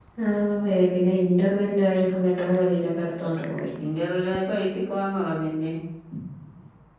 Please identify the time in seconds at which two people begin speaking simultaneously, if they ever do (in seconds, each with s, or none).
none